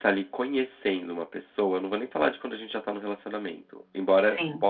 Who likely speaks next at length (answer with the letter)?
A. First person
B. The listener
A